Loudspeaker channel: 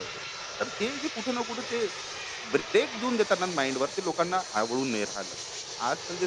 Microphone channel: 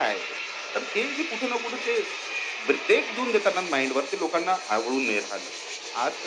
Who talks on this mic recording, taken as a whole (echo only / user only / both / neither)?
echo only